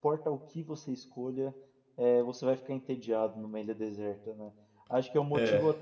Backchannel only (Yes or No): Yes